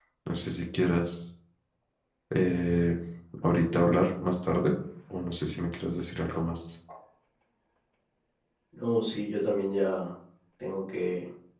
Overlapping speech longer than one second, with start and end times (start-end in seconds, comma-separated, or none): none